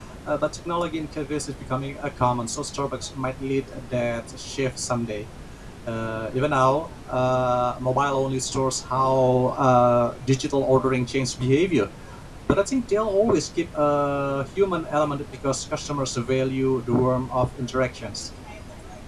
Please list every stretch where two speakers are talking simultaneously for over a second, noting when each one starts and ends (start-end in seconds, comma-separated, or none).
none